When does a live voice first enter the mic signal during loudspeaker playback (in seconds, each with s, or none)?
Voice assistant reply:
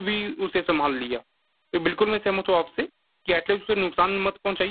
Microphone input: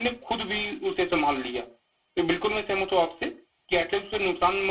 none